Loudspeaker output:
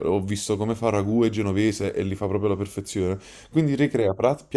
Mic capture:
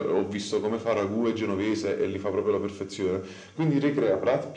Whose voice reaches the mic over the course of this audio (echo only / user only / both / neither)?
echo only